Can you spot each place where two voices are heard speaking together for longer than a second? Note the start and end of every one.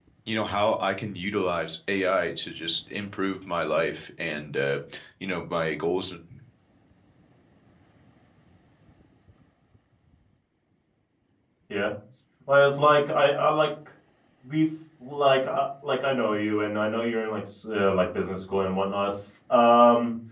none

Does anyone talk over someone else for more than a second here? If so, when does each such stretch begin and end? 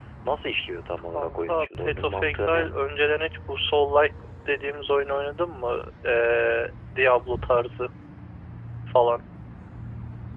1.1-2.8

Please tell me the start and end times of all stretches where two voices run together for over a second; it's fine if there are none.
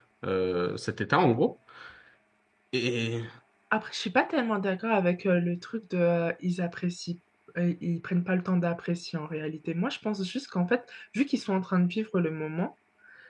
none

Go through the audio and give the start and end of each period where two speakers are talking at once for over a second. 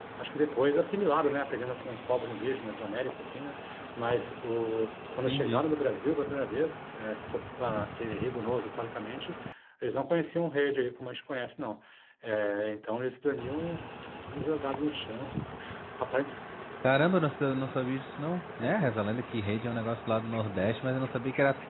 none

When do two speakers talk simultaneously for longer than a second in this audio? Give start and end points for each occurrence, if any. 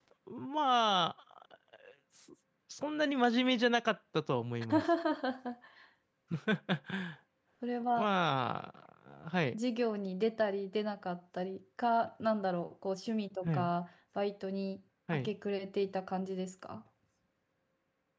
none

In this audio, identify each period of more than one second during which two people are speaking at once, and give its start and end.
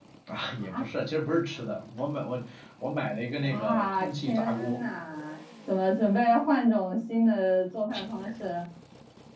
3.4-4.8

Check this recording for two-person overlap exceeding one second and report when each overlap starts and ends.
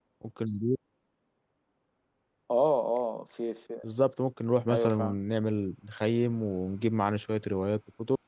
none

